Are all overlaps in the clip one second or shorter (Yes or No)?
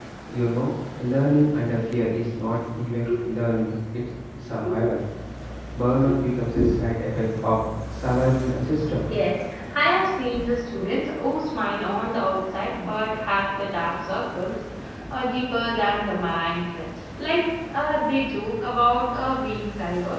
Yes